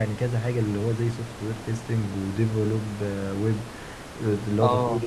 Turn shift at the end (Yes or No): No